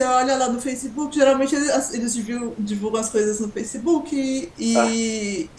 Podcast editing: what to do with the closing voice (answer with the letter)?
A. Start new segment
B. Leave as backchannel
B